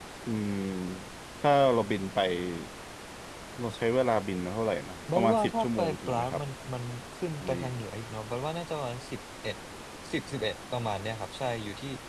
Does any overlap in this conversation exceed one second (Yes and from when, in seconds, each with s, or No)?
Yes, from 5.2 s